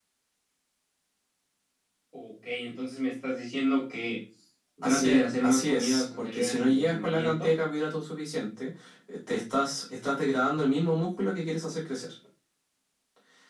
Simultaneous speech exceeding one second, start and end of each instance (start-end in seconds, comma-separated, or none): 4.8-7.5